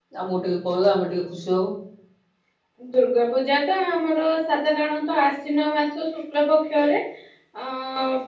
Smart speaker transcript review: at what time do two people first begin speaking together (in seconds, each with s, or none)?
none